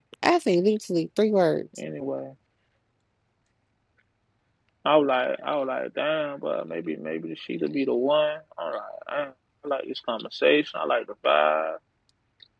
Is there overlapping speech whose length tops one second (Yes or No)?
No